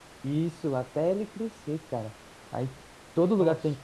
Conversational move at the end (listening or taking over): listening